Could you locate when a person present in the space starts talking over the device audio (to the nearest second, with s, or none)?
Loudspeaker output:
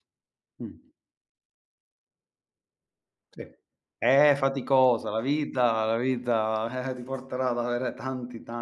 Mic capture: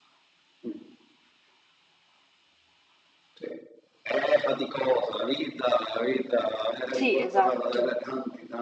7 s